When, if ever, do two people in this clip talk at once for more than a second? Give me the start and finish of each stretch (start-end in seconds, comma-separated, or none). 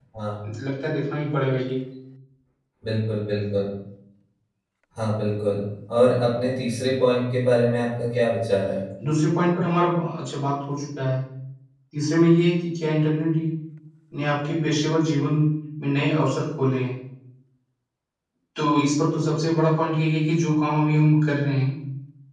none